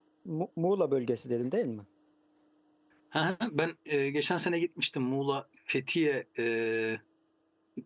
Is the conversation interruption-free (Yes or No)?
Yes